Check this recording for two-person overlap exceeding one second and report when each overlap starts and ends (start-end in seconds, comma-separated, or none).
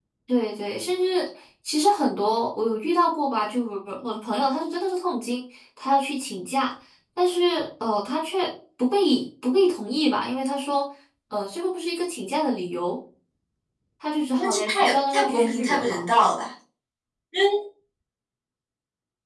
14.4-16.1